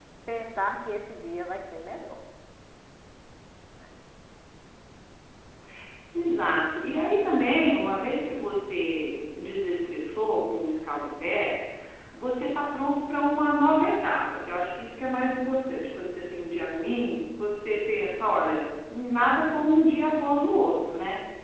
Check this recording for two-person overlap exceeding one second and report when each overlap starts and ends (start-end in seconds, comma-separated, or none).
none